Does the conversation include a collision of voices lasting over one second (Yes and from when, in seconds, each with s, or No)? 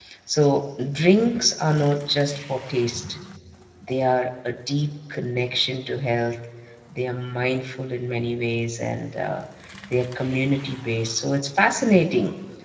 No